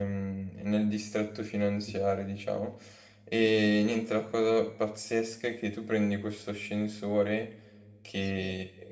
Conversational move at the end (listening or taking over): listening